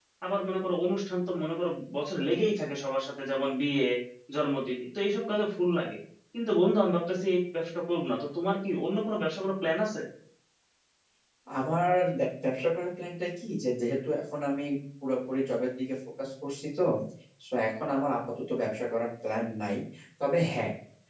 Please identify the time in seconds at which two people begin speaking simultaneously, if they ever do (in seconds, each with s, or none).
none